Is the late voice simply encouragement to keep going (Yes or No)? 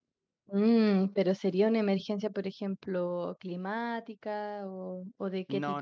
No